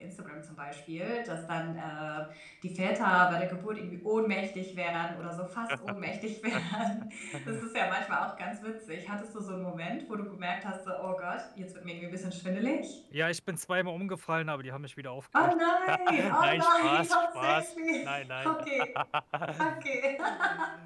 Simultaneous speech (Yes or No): Yes